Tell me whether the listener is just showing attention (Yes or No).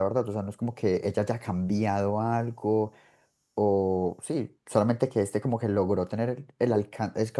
Yes